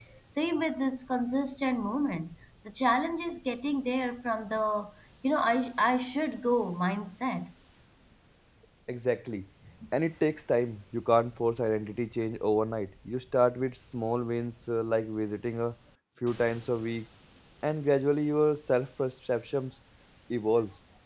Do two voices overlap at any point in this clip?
No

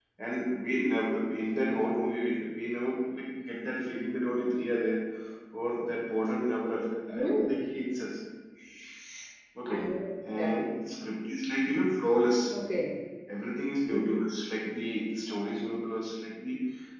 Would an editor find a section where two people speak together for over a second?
No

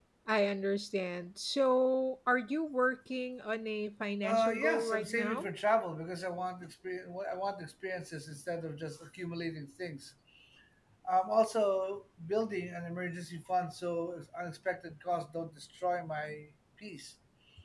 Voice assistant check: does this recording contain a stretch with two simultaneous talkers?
Yes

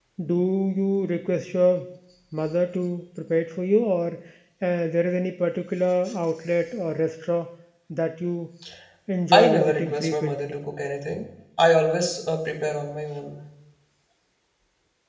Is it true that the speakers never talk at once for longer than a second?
No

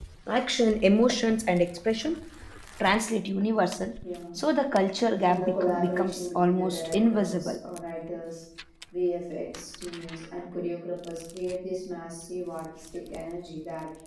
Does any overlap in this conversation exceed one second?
Yes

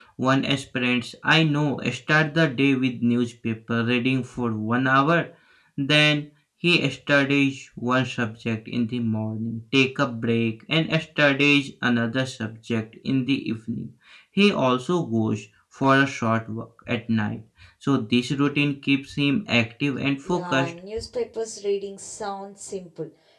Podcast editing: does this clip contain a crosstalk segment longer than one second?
No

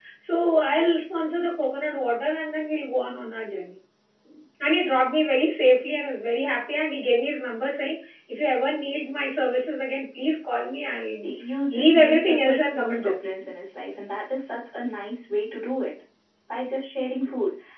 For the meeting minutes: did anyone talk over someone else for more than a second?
Yes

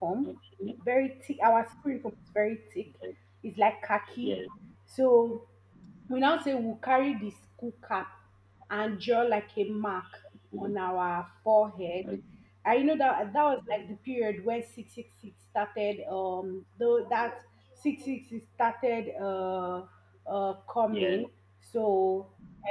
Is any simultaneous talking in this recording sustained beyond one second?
No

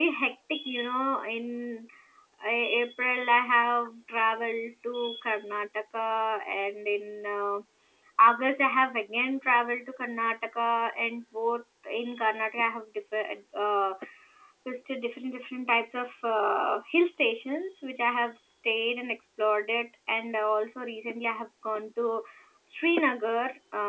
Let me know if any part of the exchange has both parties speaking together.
No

